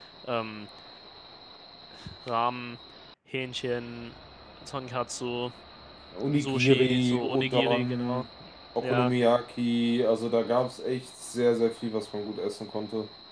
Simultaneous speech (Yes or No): Yes